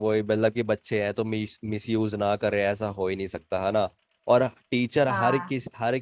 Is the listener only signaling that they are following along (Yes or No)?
Yes